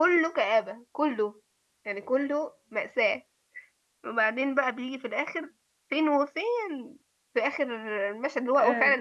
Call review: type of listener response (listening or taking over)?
listening